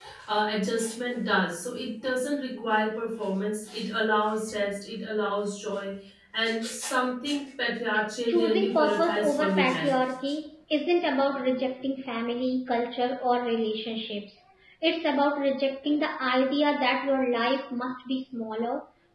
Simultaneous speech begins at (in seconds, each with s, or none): 8.3 s